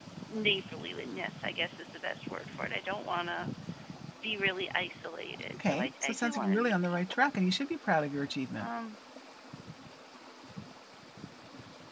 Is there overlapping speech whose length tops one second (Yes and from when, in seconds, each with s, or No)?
Yes, from 5.5 s